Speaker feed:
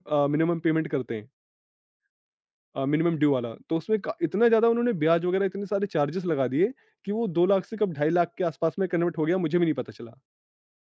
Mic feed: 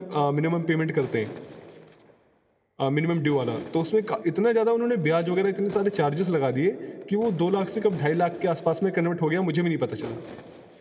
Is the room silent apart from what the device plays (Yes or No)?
Yes